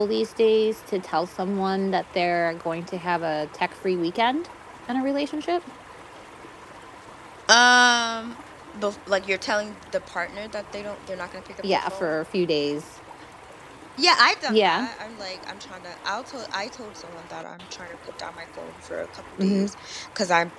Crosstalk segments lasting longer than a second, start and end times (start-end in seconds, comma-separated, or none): none